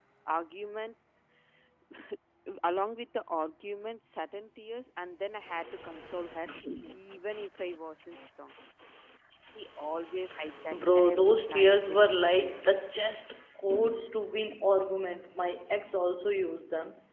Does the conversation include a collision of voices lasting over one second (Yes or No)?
Yes